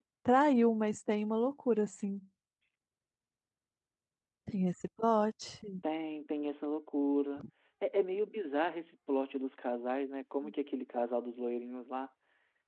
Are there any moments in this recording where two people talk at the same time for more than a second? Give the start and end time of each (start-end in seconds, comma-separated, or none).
none